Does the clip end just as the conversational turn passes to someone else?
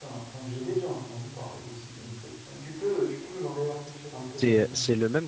Yes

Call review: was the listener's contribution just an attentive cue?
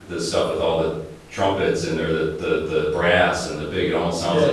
Yes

